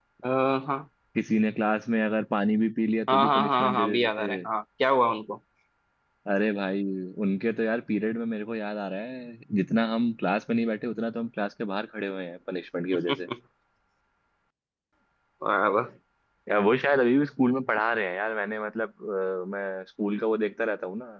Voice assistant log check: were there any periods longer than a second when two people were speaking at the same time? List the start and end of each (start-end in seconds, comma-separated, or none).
3.1-4.5